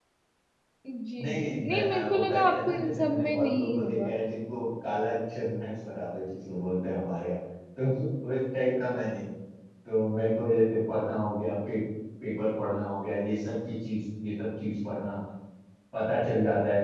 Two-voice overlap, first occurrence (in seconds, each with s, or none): 1.2 s